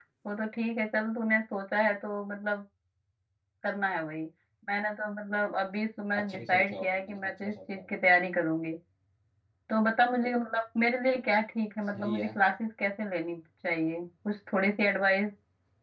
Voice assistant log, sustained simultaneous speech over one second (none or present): present